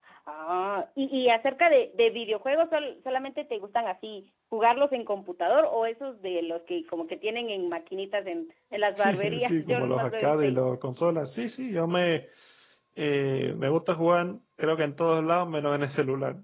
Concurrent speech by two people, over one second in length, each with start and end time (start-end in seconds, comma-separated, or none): 9.0-10.6